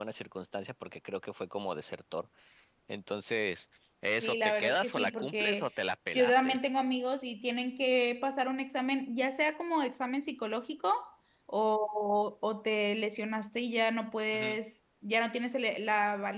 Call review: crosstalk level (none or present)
present